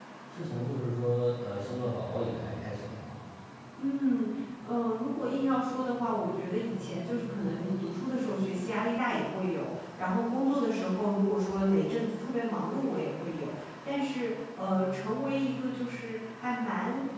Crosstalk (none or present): none